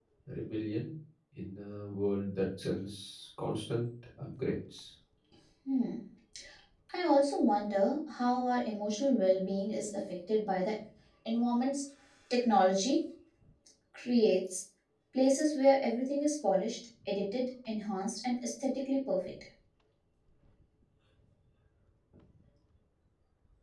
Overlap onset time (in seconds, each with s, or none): none